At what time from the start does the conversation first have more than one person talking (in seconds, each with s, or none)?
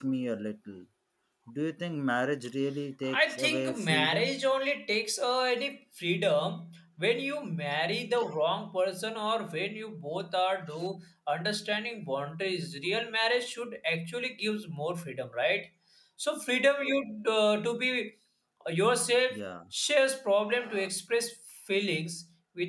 3.1 s